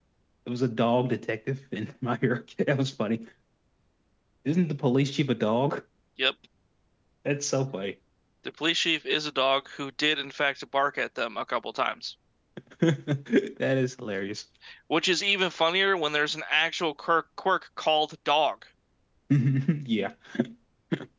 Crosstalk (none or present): none